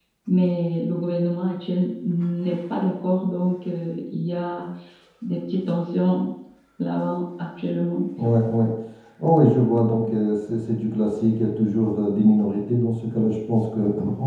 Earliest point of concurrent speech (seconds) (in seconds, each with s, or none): none